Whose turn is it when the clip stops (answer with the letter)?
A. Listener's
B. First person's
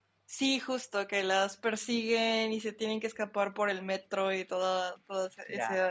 A